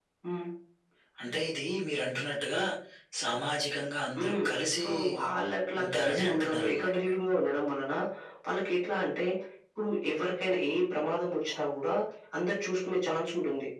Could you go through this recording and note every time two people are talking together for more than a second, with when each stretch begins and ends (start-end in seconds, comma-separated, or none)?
5.8-7.1